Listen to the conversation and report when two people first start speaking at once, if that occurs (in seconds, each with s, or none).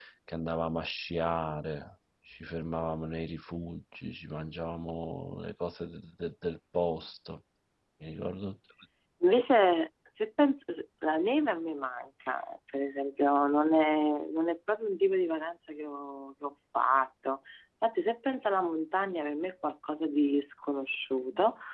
none